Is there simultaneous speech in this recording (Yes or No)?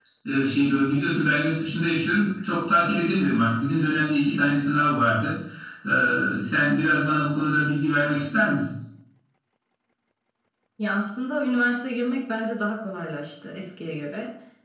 No